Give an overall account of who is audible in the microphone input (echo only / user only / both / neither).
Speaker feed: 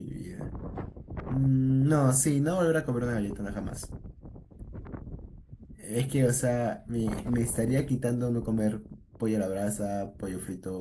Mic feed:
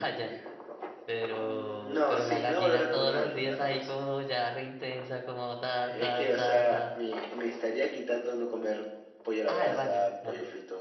both